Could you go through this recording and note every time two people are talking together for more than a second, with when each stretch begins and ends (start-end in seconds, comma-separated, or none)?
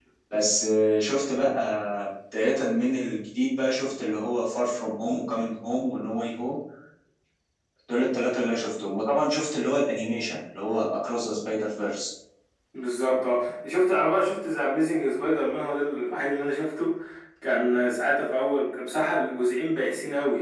none